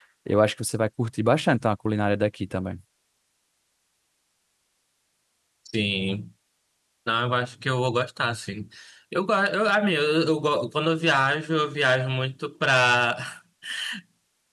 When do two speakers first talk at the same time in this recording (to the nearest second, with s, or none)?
none